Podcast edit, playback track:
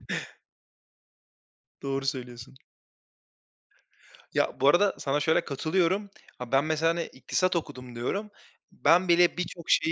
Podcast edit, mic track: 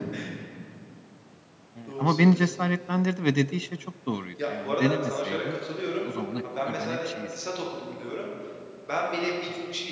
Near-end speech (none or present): present